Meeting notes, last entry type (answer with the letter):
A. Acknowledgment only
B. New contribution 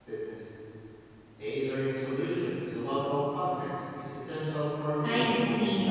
B